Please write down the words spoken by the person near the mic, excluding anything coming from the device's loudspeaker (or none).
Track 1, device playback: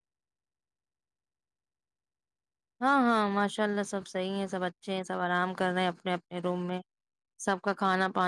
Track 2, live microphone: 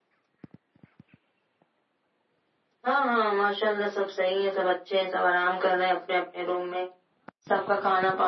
none